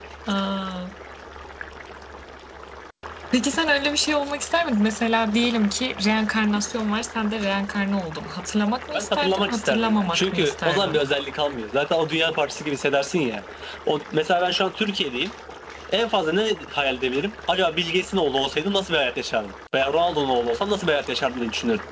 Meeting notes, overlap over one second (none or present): present